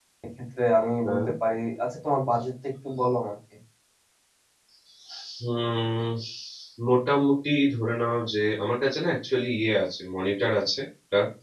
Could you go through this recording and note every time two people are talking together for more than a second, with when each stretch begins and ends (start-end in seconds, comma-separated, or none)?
none